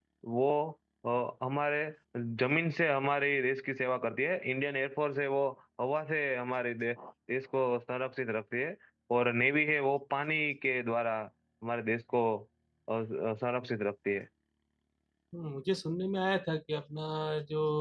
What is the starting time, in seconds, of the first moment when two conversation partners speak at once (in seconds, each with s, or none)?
none